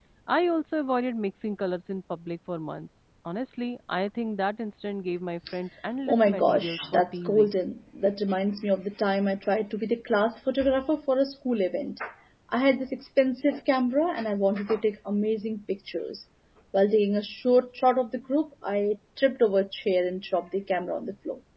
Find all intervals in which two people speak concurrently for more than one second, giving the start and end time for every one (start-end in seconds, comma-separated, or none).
6.1-7.5